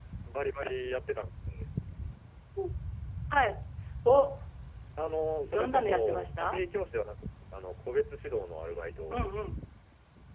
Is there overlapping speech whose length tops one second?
Yes, from 5.4 s

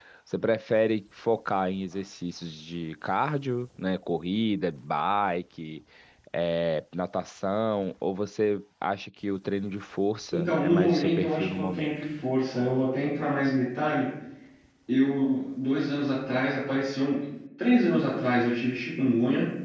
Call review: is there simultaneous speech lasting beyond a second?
Yes, from 10.3 s

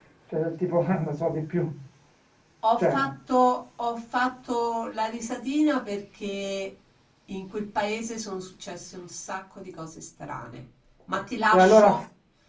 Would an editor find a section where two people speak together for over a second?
No

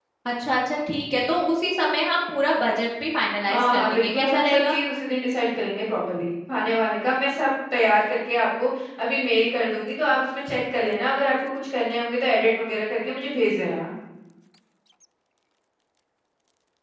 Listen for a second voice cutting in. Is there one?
Yes, from 3.5 s

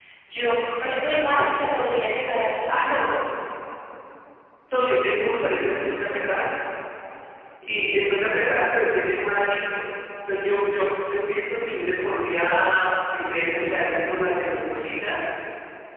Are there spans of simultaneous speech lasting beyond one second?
No

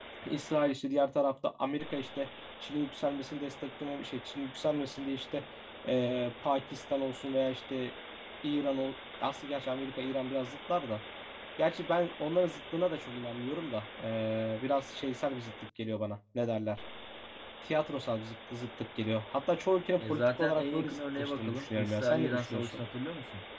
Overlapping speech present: Yes, from 20.0 s

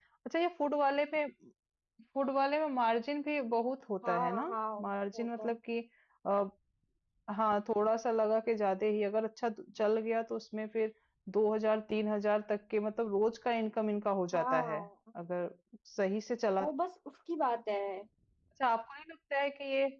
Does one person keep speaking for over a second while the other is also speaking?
No

